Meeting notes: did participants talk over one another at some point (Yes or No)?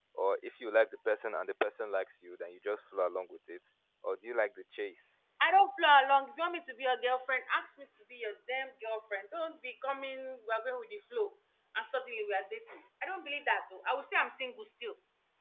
No